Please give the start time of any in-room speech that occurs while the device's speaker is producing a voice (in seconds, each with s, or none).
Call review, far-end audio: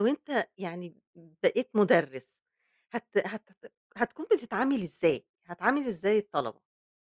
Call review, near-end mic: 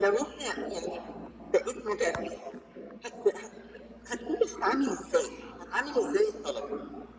none